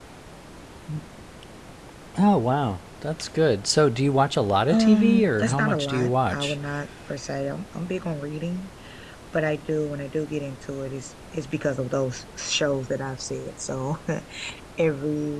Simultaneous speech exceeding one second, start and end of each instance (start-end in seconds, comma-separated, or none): 4.7-6.5